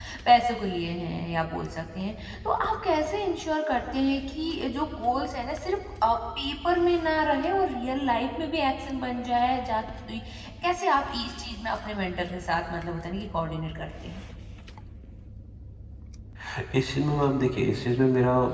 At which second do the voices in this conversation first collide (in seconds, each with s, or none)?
none